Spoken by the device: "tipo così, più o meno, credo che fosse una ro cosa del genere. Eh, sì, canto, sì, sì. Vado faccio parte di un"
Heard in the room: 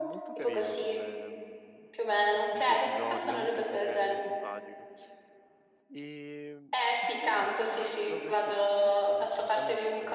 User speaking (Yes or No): Yes